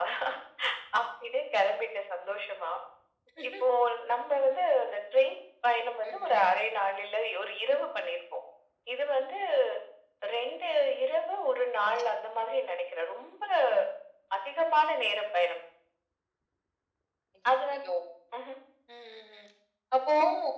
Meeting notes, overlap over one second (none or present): none